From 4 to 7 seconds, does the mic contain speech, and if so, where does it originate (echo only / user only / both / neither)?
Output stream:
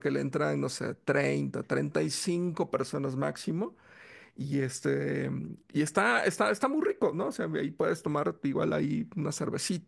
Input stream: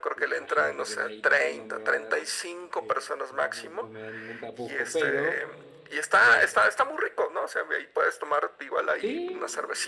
both